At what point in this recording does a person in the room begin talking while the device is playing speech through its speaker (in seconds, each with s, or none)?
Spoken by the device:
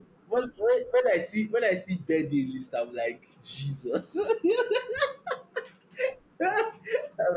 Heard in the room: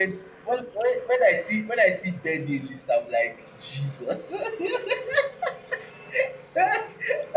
none